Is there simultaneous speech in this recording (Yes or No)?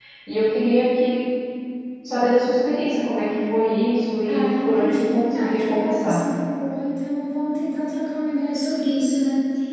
Yes